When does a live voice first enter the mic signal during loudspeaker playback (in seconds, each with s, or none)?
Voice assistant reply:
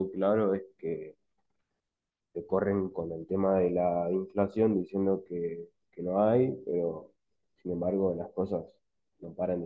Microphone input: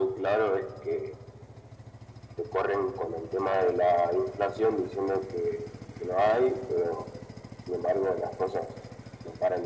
none